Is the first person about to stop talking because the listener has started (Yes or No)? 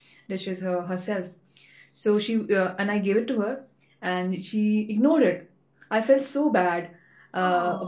No